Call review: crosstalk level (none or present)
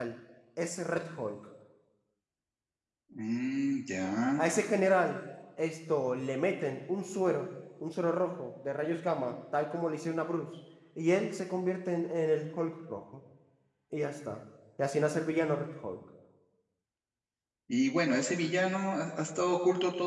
none